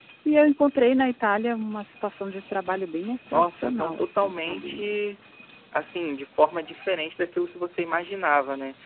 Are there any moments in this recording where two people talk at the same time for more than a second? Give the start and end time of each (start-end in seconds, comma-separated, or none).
3.3-4.7